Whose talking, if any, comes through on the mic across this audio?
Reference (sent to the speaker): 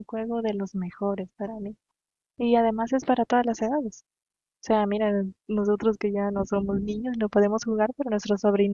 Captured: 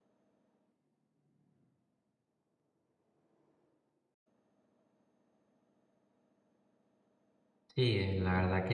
user only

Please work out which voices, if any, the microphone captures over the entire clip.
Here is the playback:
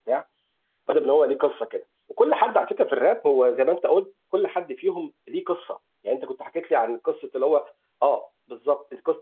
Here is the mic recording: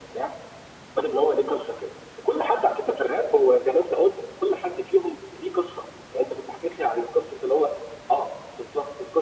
echo only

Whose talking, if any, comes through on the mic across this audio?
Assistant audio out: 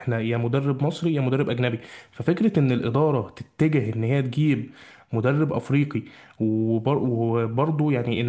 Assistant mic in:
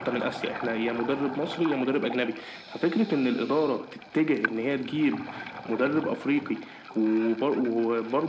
echo only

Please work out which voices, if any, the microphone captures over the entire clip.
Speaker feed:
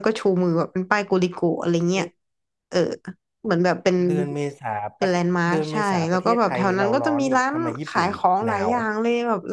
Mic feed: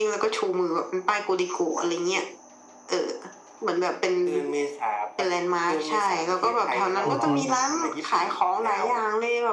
both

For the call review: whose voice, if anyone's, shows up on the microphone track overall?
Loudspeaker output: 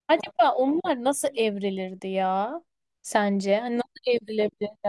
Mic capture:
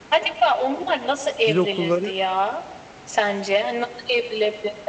both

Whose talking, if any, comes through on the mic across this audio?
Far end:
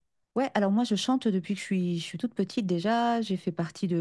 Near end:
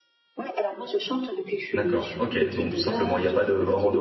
both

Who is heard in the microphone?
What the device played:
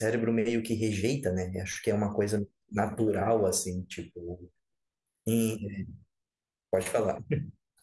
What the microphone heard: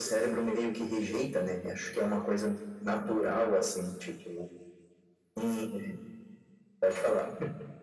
echo only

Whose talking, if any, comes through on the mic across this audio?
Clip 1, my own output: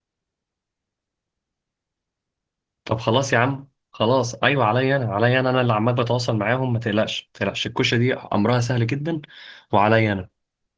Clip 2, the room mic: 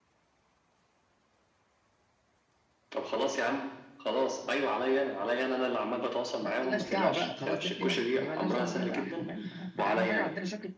both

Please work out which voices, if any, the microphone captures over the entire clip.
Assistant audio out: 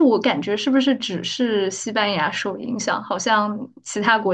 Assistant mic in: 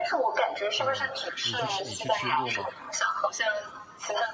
both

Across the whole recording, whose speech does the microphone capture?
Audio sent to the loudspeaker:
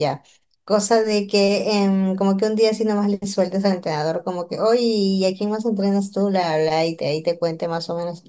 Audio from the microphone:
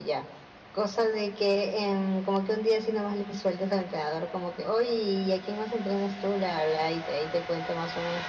echo only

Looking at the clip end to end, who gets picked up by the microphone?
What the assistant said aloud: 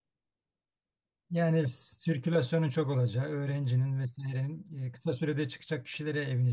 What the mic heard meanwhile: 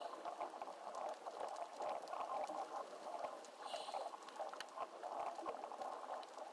neither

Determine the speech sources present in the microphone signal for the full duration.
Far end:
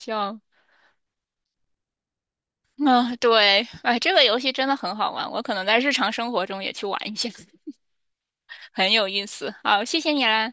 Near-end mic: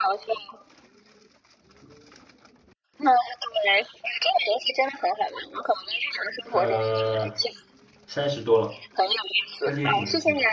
both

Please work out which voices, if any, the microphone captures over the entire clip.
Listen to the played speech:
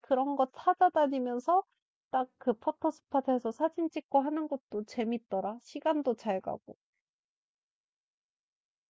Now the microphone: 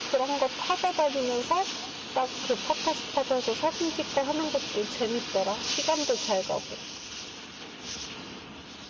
echo only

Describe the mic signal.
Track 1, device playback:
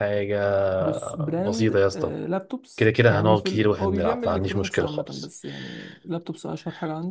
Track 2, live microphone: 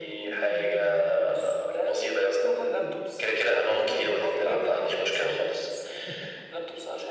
both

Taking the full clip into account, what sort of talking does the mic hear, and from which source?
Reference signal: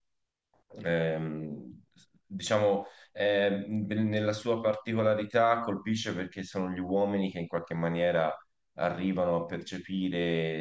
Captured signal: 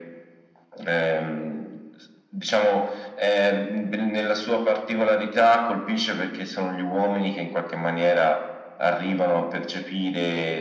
echo only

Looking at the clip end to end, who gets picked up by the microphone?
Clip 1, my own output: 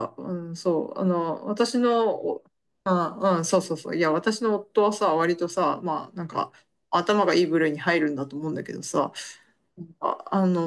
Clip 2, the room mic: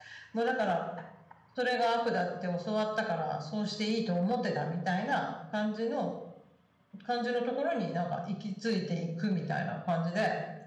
user only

